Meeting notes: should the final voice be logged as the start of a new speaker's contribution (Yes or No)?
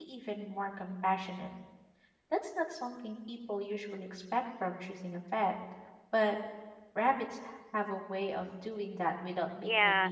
Yes